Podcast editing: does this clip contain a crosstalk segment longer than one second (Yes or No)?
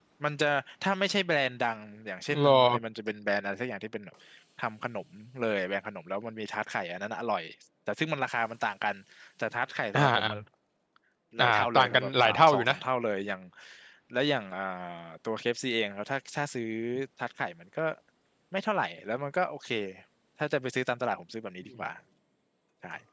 Yes